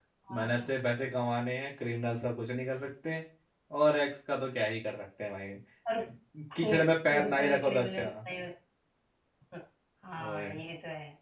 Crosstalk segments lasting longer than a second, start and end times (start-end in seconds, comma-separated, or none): 6.6-8.0